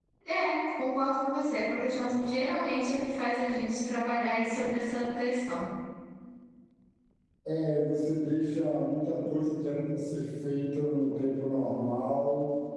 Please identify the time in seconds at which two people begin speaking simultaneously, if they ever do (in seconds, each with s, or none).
none